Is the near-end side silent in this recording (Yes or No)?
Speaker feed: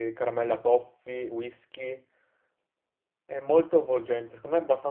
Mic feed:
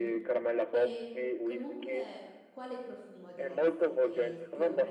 No